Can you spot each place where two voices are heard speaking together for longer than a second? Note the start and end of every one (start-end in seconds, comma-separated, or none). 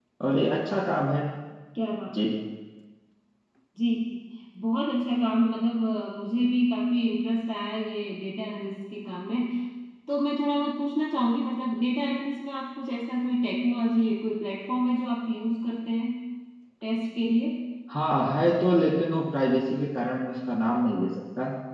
none